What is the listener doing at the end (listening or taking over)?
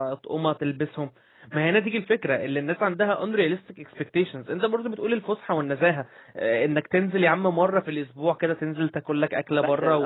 listening